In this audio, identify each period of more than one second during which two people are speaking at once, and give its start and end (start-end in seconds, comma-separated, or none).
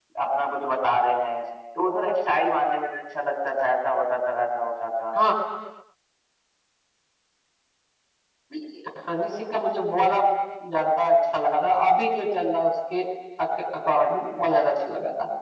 none